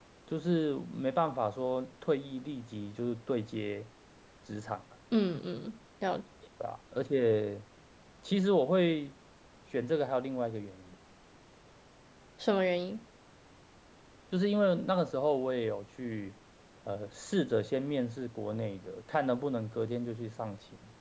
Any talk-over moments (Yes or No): No